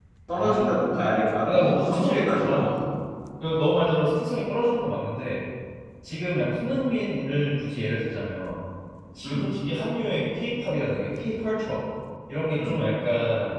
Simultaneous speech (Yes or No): Yes